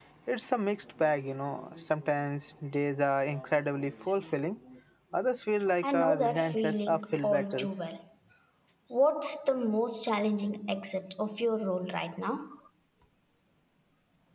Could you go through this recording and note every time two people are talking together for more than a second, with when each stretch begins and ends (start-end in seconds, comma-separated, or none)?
5.8-7.7